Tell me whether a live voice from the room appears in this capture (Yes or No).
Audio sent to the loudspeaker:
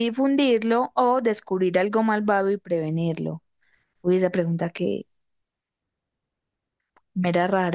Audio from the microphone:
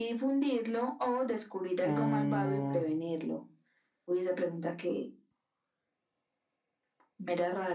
Yes